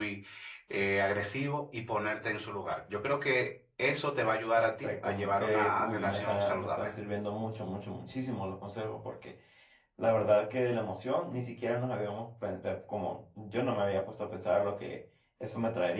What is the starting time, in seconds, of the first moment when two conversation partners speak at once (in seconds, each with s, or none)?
4.6 s